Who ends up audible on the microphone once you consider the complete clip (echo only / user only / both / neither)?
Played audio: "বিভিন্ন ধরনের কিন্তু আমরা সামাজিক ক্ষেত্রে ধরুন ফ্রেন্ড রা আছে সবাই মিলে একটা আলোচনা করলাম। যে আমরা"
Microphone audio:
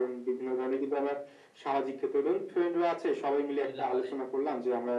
both